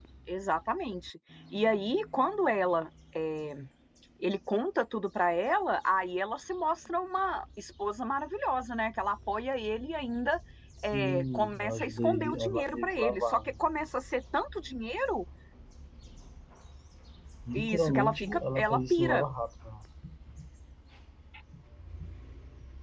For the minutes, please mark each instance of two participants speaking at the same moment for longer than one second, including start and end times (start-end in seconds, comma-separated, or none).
10.9-13.5, 17.5-19.2